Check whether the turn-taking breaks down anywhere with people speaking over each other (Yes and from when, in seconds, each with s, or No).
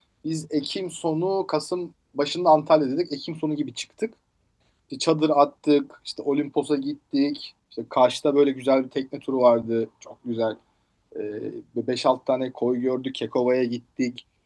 No